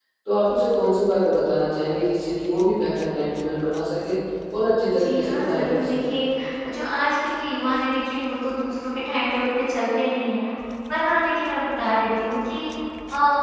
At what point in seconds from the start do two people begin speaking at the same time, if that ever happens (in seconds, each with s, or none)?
4.9 s